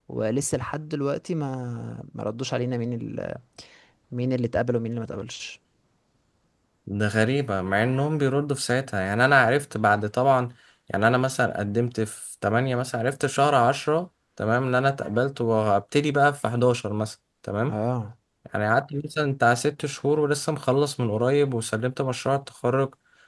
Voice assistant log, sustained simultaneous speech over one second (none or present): none